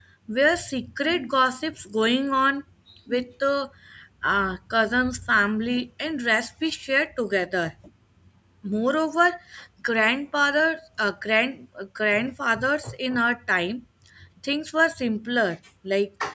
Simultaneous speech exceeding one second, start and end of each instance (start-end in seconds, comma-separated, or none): none